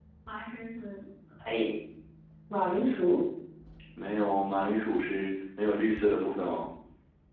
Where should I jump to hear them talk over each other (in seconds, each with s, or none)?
none